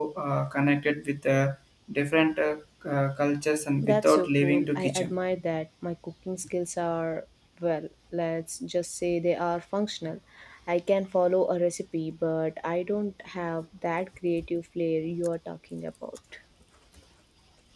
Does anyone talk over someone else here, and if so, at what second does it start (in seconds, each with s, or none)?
3.8 s